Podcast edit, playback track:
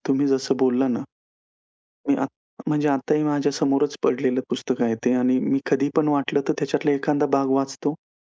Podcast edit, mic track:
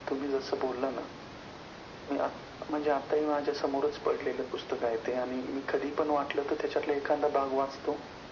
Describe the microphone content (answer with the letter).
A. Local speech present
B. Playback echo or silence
B